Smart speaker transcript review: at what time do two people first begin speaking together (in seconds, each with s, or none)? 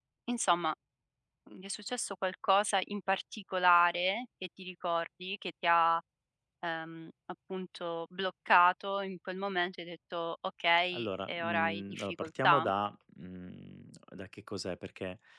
10.9 s